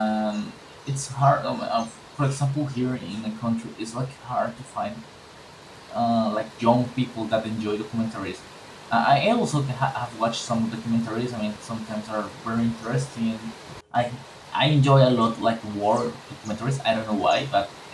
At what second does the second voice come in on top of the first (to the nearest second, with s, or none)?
none